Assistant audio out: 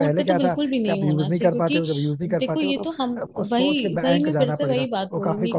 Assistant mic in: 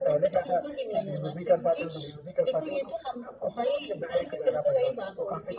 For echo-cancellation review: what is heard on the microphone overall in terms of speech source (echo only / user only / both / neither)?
echo only